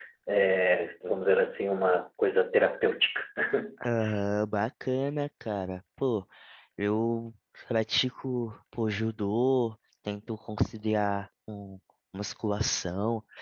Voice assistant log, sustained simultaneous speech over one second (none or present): none